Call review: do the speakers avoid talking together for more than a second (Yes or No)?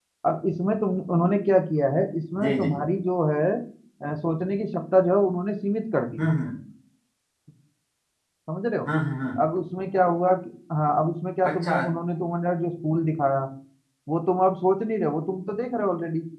Yes